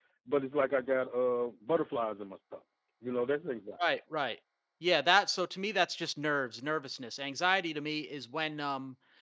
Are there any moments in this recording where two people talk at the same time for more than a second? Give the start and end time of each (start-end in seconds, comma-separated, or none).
none